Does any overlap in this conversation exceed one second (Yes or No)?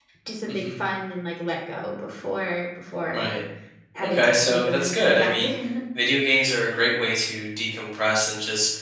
Yes